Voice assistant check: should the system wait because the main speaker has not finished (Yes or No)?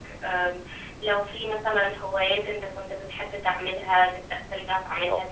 Yes